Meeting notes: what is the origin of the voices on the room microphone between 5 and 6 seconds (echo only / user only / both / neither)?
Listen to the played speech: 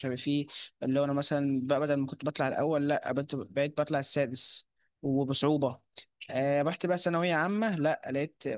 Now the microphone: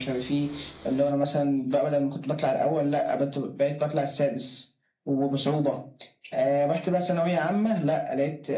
echo only